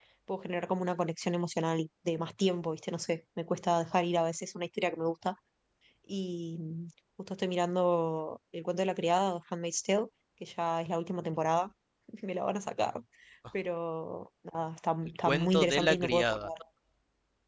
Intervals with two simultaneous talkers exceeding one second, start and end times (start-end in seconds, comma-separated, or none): 15.3-16.5